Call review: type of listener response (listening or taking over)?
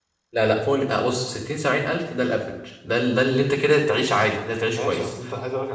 taking over